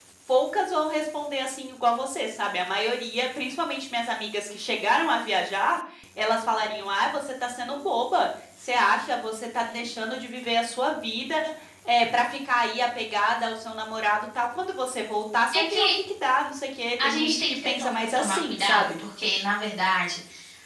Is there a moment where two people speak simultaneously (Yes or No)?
Yes